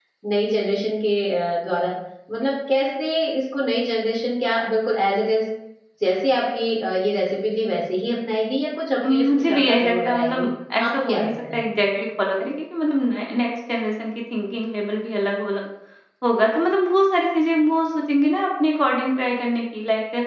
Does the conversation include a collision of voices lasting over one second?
Yes, from 9.0 s

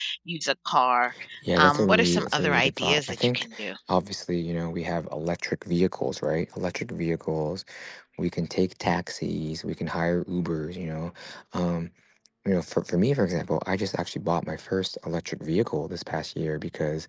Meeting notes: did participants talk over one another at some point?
Yes, from 1.6 s

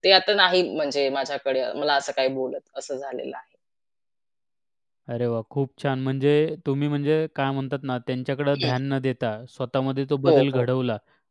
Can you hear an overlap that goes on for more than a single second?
No

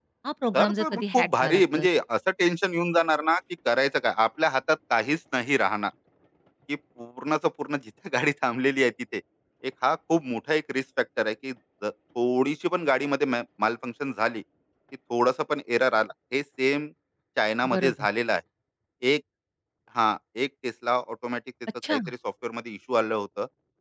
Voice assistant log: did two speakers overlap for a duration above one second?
Yes, from 0.5 s

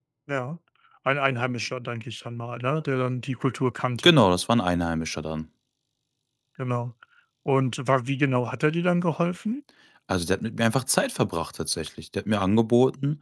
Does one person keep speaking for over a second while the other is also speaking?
No

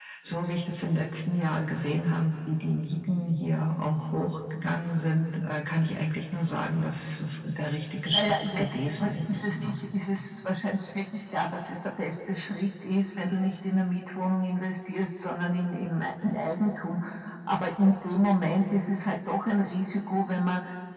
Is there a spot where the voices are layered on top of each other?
Yes, from 8.1 s

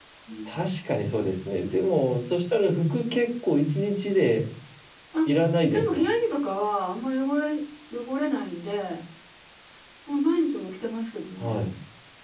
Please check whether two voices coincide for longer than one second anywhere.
No

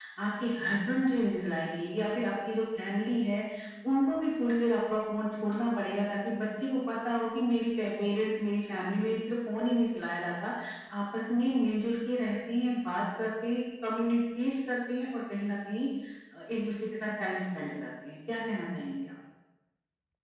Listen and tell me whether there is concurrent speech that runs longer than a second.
No

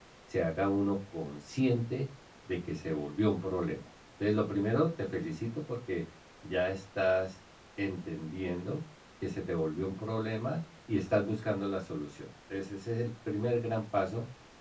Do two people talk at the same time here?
No

